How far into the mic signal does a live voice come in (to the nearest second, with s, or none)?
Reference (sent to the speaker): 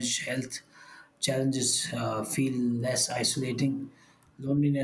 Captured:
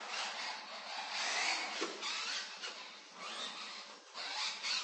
none